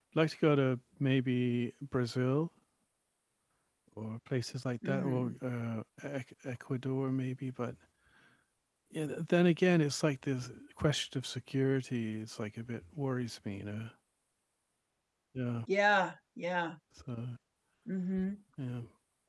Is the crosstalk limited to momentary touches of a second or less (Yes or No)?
Yes